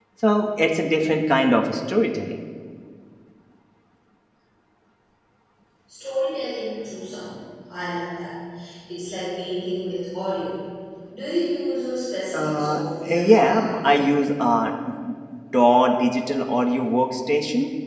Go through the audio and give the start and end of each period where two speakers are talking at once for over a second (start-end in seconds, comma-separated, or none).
12.3-14.0